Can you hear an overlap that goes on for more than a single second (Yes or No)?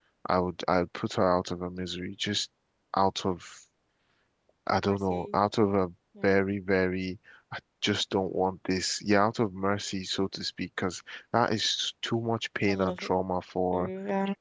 No